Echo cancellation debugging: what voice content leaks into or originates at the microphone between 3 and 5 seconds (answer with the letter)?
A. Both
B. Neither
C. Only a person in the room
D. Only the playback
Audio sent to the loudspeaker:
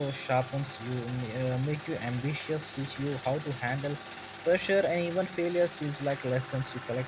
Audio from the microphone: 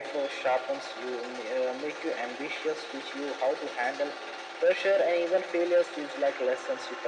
D